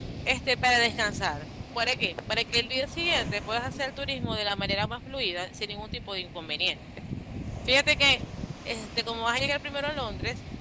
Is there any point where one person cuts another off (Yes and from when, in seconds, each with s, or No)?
No